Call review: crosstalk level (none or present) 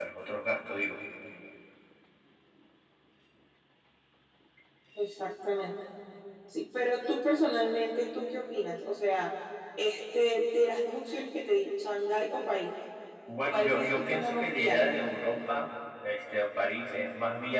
present